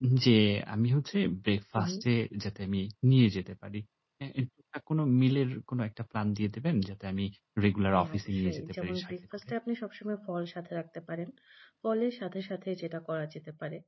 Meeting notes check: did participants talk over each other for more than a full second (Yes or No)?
Yes